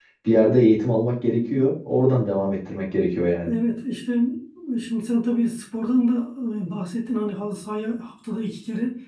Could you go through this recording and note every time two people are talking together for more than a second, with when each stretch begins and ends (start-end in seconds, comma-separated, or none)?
none